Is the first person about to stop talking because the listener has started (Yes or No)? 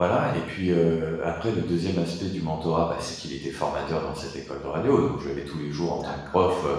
No